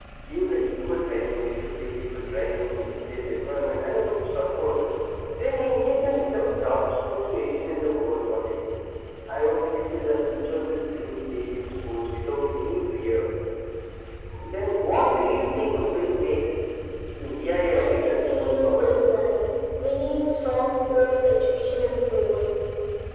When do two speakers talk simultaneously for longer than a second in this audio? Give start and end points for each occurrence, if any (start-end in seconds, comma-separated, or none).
17.7-19.1